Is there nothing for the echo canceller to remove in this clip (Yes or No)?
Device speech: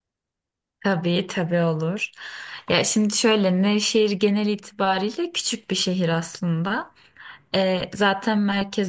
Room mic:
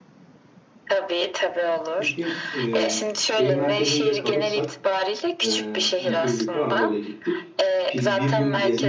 No